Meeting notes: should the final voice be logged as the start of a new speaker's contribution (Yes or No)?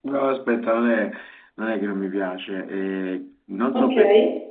No